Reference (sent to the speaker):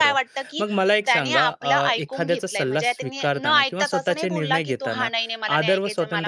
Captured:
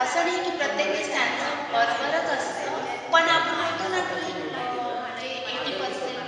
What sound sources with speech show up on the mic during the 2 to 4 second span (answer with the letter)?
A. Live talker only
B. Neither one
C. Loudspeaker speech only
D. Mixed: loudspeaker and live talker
D